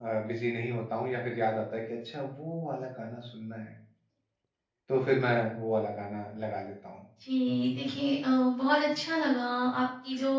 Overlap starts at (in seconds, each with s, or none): none